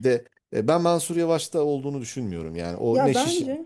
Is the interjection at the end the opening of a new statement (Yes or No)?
Yes